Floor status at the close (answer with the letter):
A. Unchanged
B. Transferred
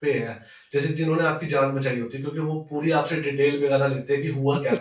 B